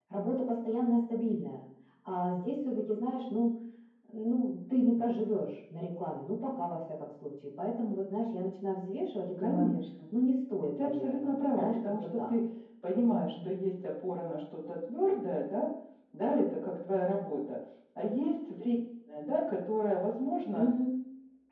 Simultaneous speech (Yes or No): Yes